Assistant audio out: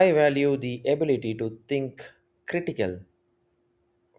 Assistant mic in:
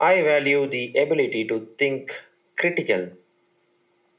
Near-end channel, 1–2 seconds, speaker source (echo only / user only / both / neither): echo only